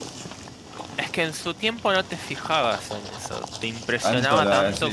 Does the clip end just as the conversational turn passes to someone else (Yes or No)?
Yes